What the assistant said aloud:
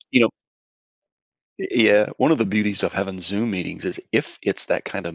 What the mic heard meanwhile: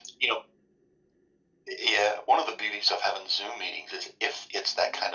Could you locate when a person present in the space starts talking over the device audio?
none

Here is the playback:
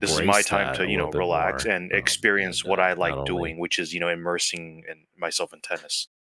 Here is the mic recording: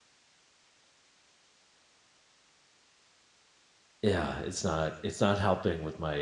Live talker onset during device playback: 4.0 s

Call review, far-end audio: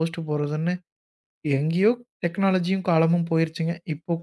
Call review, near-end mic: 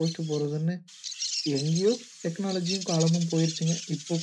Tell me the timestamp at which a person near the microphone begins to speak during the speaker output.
none

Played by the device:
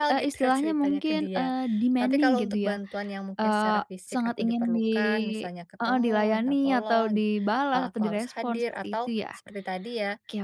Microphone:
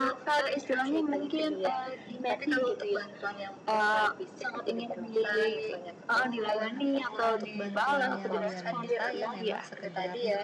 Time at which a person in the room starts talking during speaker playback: 6.5 s

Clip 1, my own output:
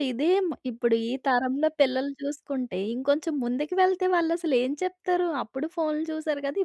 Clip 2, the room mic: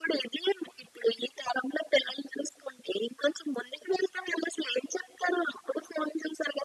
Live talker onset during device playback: none

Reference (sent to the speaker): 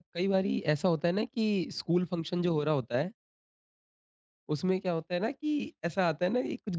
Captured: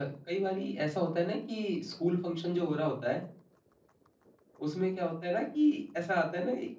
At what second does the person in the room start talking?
none

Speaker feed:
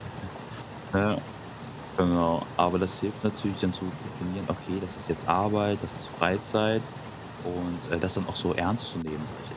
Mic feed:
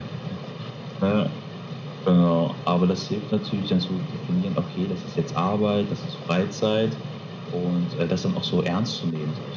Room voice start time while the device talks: none

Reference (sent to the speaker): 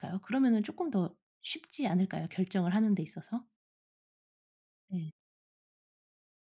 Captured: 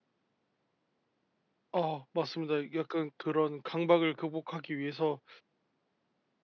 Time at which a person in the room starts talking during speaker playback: 1.7 s

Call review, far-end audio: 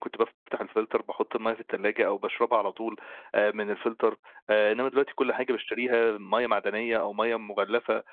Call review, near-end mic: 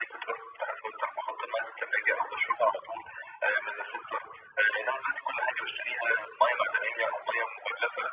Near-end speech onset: none

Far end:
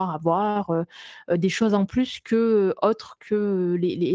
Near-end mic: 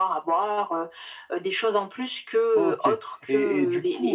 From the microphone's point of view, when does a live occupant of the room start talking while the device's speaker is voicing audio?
2.5 s

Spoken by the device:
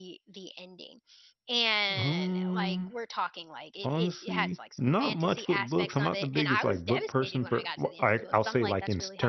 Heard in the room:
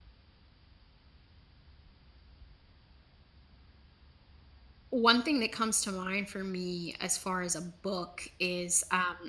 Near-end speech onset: 4.9 s

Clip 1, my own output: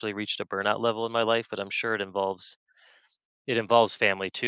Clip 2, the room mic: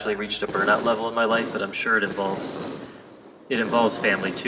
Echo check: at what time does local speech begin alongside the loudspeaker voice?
none

